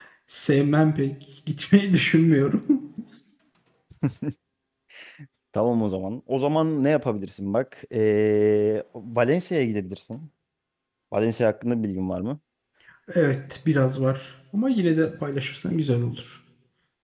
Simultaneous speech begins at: none

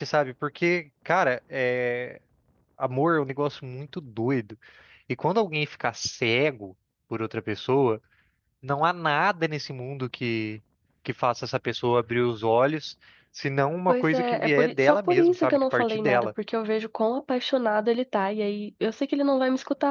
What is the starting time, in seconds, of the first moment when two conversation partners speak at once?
13.9 s

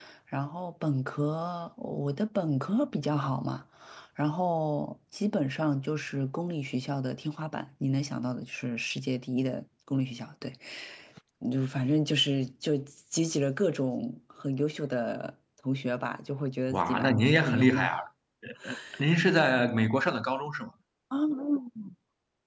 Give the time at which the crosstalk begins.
16.7 s

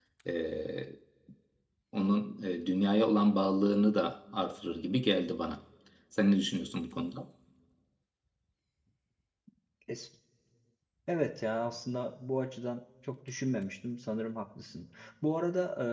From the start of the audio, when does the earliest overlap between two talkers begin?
none

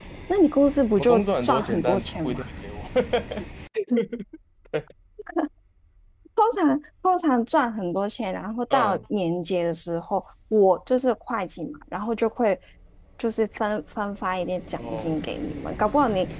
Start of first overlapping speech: 1.0 s

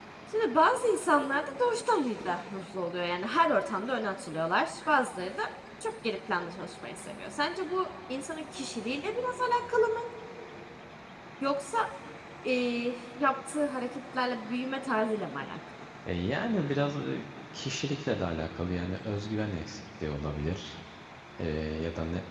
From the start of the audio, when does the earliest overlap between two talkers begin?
none

